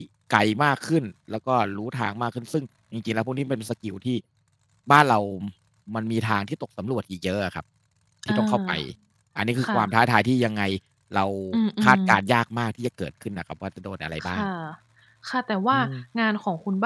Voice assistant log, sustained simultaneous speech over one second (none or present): none